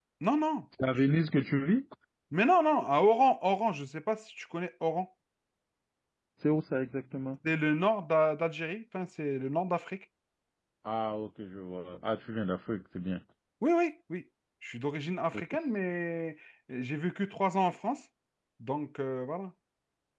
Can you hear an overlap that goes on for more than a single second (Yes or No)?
No